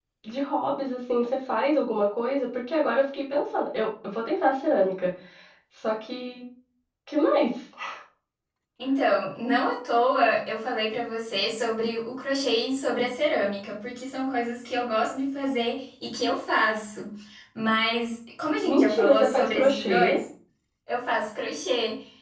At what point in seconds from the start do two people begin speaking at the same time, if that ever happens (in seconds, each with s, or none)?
18.6 s